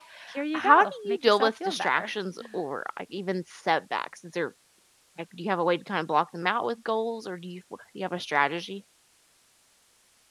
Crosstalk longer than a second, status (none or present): present